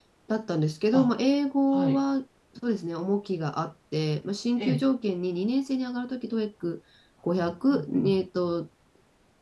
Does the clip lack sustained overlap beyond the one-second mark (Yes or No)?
Yes